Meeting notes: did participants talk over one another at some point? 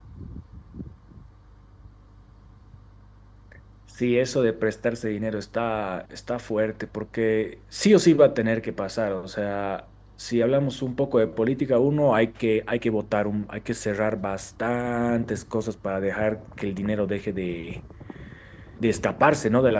No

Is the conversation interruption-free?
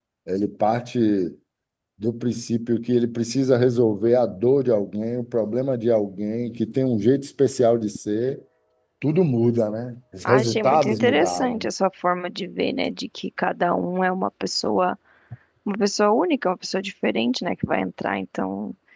No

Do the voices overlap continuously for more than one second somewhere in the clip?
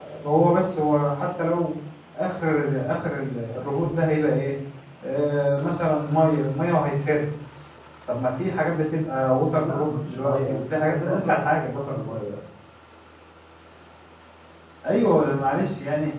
Yes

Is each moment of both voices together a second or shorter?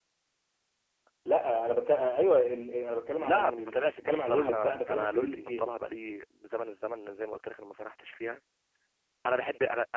No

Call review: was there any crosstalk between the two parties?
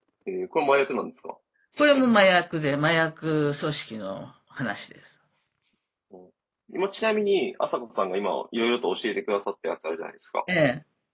No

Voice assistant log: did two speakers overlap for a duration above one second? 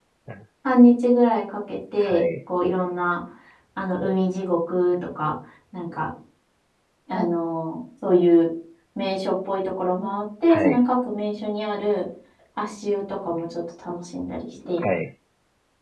No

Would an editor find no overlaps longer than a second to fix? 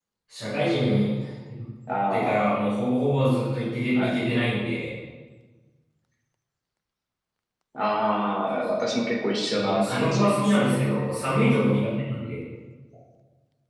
No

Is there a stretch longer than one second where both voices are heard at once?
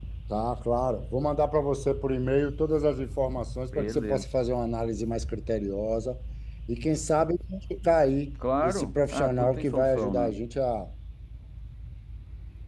Yes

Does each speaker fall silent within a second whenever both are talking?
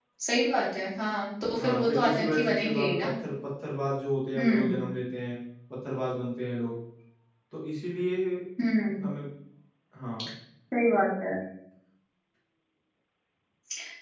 No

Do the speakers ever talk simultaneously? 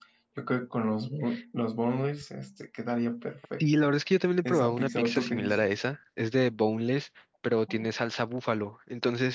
Yes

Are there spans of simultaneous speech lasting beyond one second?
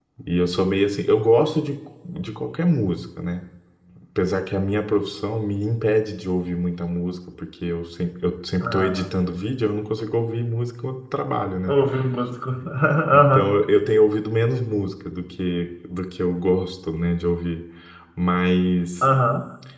No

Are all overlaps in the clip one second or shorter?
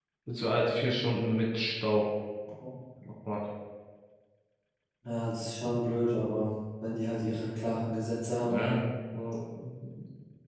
Yes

